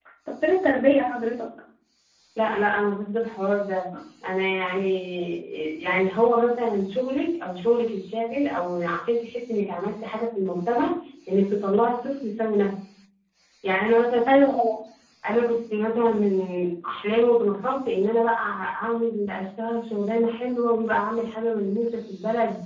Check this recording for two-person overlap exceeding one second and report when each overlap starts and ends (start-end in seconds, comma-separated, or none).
none